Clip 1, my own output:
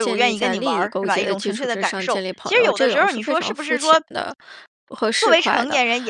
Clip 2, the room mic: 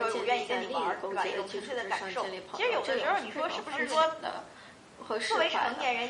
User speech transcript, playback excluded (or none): 呃，对。